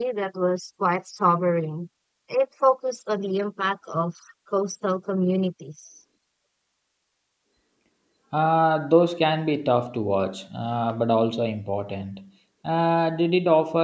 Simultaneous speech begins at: none

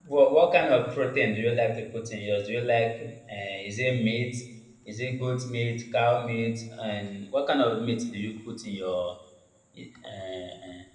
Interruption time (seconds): none

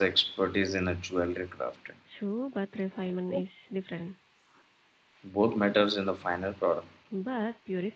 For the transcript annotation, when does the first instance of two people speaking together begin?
none

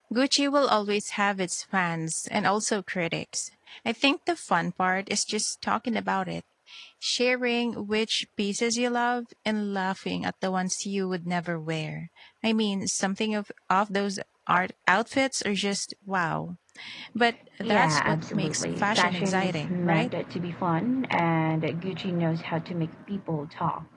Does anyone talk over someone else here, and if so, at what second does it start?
17.6 s

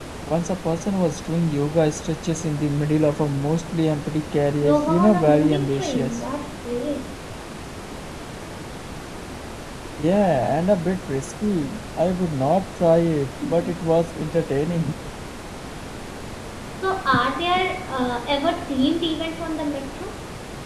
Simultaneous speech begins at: 4.6 s

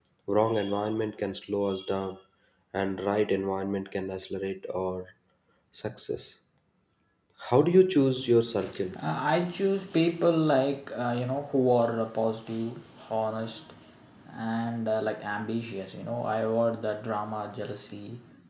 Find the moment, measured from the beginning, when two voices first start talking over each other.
none

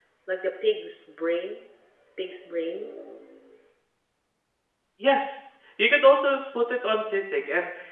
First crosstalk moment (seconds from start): none

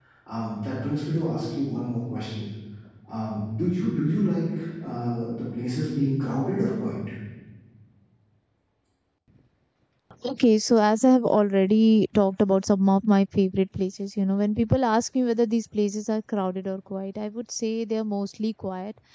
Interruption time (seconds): none

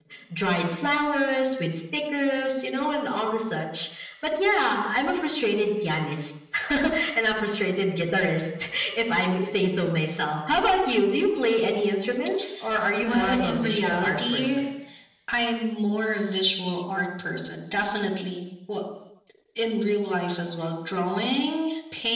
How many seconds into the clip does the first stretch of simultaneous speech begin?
13.0 s

